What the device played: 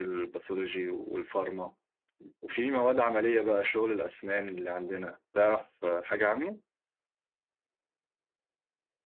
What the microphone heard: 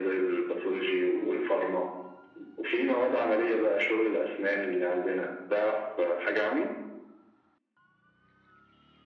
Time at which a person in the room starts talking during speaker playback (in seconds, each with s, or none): none